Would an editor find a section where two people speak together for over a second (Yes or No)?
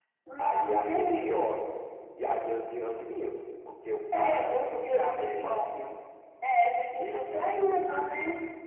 Yes